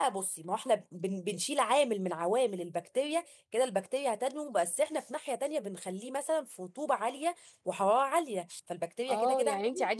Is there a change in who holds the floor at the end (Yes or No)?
Yes